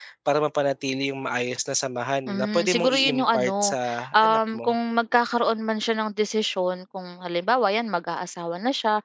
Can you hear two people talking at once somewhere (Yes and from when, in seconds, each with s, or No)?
Yes, from 2.3 s